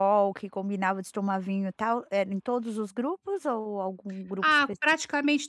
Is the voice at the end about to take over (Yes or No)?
Yes